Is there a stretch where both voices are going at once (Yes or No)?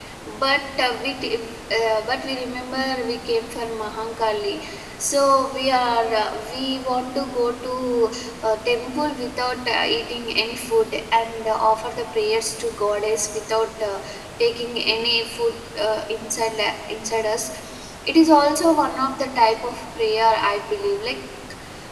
No